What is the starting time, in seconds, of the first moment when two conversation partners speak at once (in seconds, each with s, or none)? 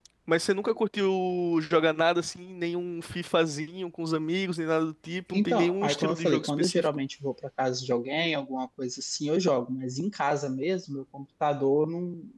5.3 s